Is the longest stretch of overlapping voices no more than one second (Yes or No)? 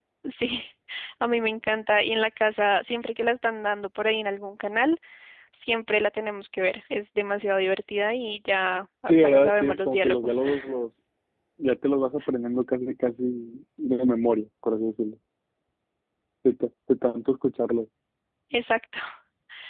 No